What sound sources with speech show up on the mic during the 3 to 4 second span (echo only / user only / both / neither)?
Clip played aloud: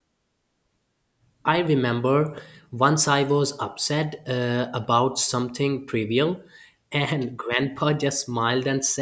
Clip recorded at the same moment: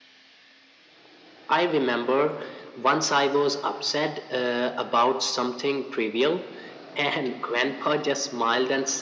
echo only